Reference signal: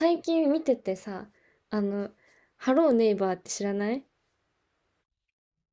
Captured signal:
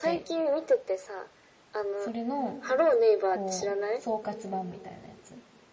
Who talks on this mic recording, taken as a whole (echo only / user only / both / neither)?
both